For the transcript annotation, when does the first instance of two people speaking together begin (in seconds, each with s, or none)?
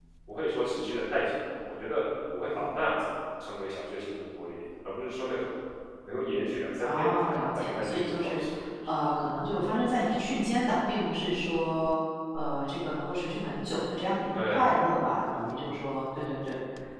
6.8 s